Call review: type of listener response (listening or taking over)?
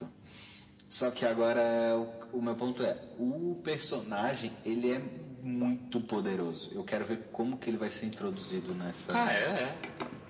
taking over